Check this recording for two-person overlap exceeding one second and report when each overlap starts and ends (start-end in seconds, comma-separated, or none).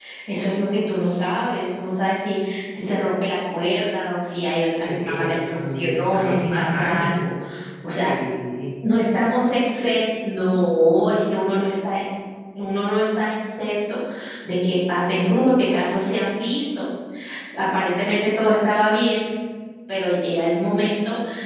4.8-7.2